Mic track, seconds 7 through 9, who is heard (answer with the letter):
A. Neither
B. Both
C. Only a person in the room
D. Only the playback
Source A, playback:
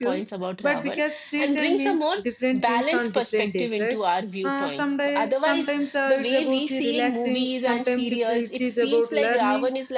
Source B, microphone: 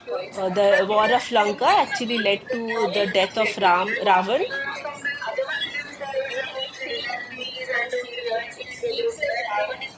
D